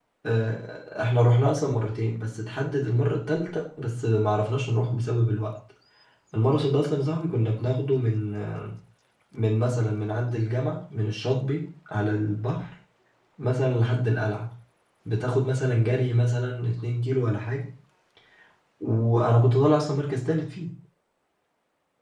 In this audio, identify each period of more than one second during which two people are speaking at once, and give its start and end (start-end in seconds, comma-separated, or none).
none